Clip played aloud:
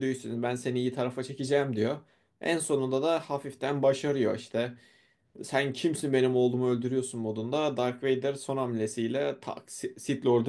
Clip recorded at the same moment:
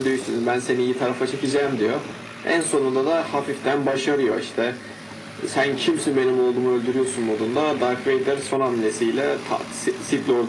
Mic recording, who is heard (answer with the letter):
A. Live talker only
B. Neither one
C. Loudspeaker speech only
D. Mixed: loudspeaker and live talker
C